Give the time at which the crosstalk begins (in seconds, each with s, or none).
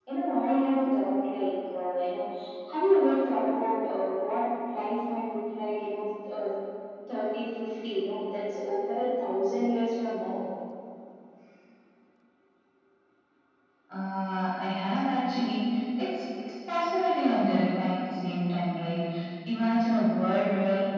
none